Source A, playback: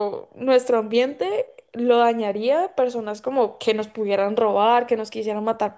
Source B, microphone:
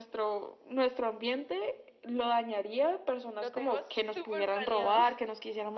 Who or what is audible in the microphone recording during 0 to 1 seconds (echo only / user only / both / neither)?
echo only